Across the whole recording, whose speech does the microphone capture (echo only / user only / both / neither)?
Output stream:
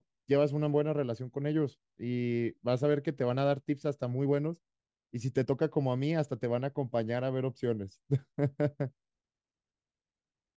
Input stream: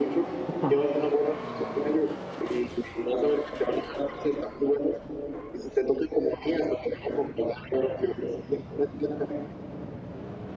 both